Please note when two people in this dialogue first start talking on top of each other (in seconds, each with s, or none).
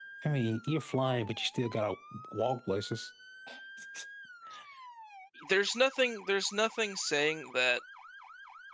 none